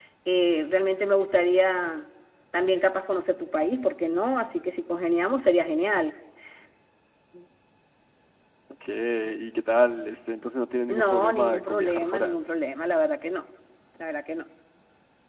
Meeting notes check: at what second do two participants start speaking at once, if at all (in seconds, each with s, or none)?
10.9 s